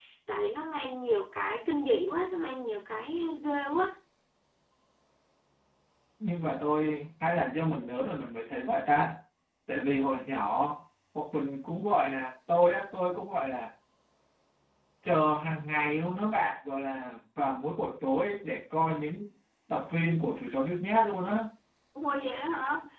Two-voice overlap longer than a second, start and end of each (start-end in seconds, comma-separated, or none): none